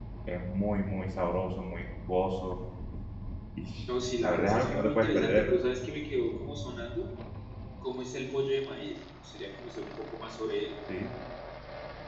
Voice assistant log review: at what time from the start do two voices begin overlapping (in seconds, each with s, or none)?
4.2 s